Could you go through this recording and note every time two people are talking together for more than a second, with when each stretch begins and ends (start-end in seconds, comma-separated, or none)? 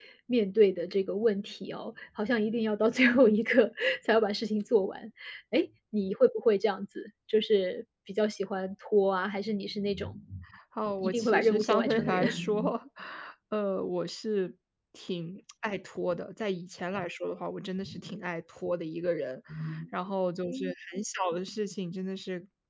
11.0-12.7